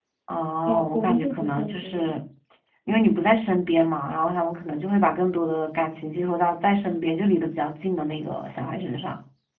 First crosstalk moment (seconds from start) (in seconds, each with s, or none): 0.7 s